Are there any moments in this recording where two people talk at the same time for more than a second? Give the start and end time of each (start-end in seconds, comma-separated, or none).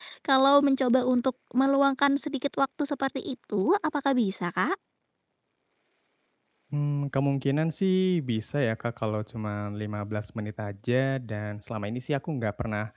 none